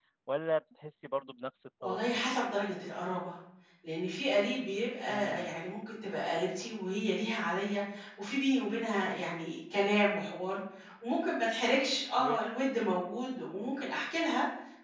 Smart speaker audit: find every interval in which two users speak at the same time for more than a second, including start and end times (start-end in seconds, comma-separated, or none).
none